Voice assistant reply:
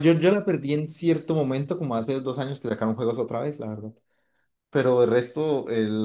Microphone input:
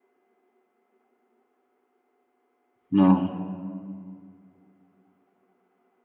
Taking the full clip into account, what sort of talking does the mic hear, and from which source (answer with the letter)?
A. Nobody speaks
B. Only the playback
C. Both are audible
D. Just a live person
D